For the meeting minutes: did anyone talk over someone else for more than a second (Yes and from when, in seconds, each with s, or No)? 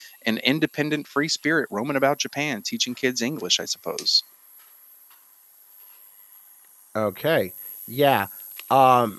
No